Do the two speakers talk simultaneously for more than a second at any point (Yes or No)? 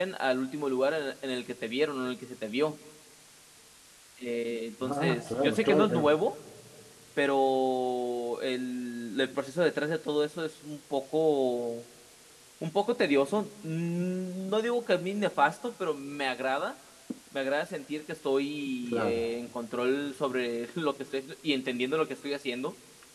Yes